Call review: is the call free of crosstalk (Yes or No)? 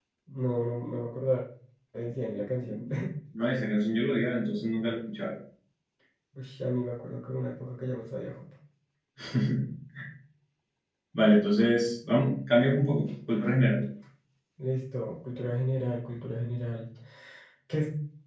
Yes